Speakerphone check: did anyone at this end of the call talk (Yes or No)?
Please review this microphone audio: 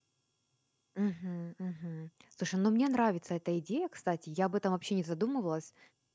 Yes